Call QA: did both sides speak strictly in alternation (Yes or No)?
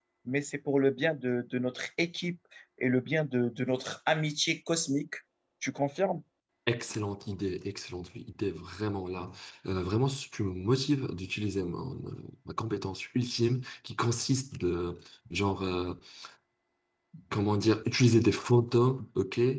Yes